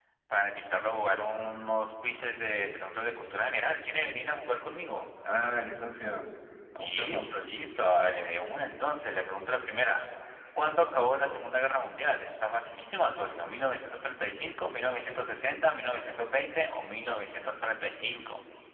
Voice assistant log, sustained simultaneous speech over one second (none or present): none